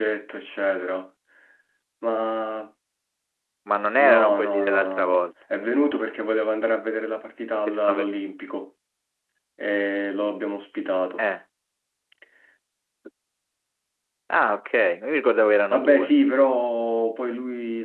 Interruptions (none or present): present